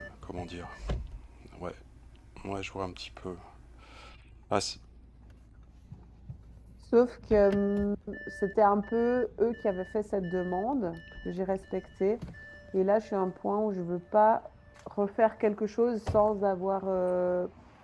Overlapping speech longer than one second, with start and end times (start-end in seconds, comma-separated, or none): none